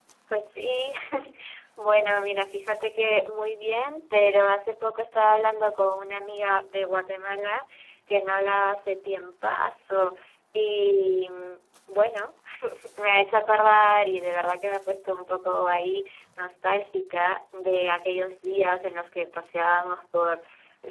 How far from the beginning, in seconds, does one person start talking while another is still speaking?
none

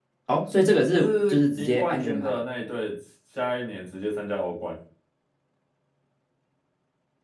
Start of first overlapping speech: 0.9 s

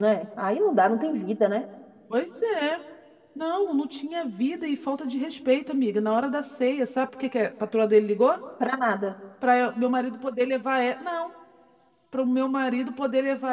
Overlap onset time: none

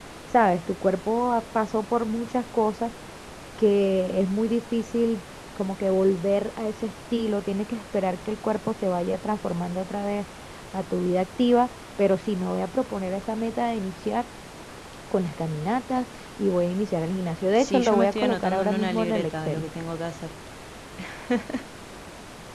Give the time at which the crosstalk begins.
17.6 s

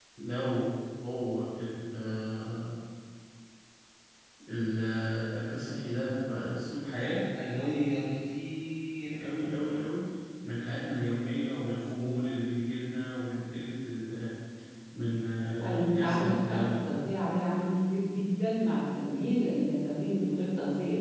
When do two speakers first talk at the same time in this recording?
15.6 s

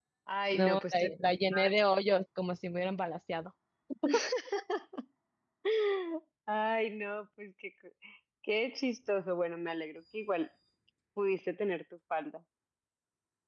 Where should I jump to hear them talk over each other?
0.5 s

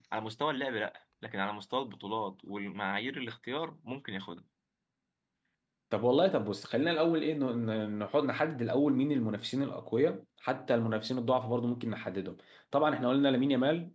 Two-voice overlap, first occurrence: none

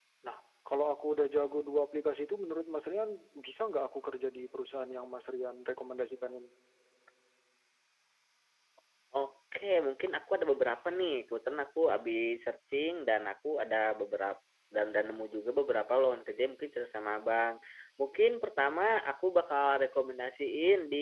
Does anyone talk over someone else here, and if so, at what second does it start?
none

